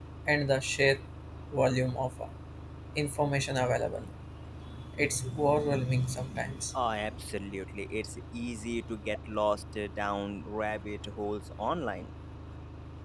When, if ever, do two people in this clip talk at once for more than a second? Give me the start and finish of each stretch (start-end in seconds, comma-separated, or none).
none